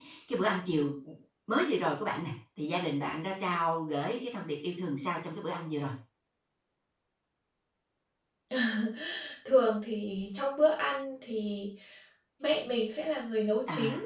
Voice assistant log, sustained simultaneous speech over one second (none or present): none